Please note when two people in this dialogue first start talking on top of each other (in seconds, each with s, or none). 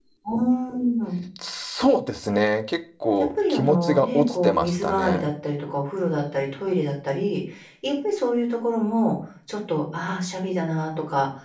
3.2 s